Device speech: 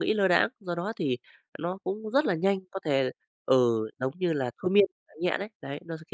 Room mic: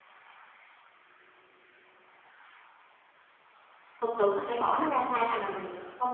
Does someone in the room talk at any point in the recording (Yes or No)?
Yes